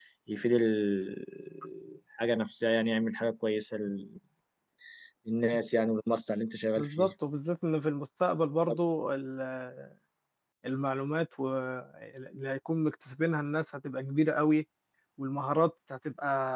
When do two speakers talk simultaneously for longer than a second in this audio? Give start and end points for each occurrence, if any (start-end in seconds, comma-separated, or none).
none